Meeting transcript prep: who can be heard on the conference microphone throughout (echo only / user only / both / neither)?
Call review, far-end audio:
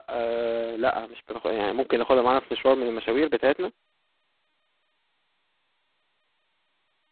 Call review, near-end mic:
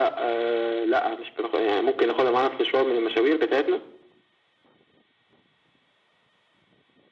echo only